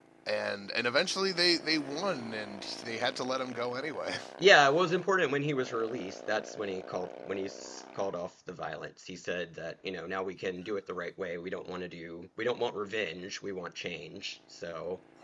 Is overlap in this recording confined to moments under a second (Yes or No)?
Yes